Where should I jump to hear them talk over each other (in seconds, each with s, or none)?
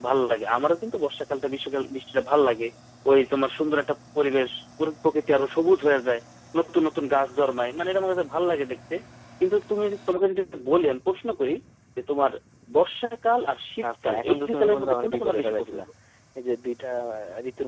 13.8 s